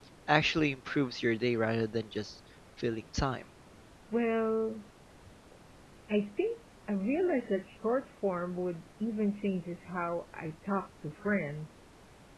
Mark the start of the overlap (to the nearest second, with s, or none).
none